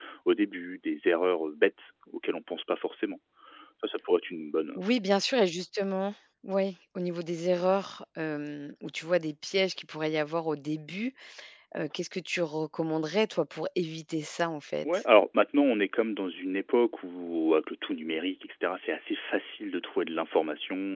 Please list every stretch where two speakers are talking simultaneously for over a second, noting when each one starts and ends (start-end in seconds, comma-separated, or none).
none